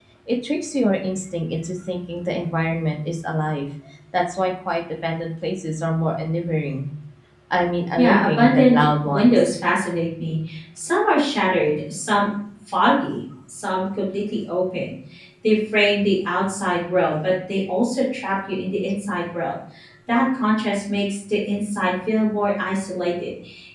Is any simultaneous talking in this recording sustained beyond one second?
Yes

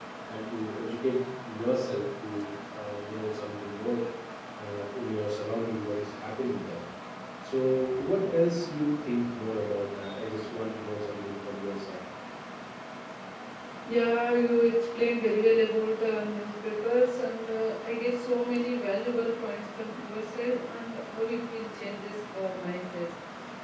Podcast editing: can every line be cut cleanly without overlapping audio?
Yes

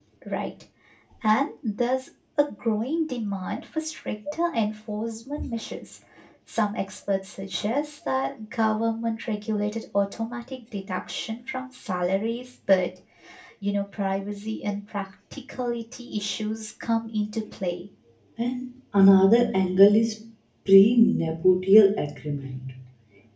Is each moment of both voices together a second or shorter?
Yes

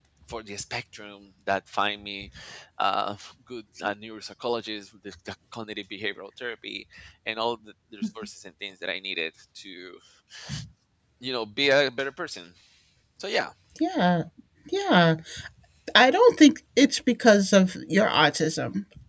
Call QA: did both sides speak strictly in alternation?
Yes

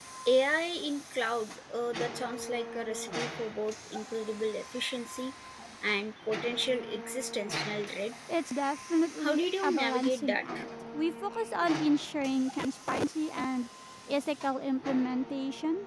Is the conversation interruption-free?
No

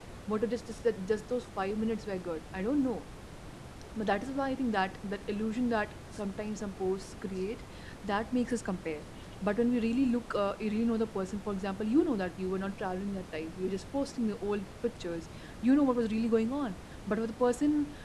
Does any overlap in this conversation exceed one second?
No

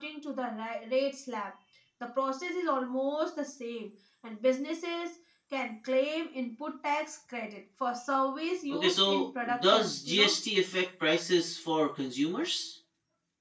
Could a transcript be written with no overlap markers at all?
No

